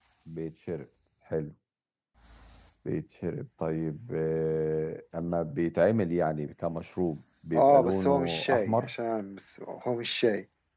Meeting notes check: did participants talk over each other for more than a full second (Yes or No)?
Yes